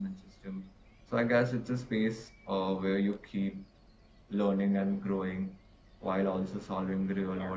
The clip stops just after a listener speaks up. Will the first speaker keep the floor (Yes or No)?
Yes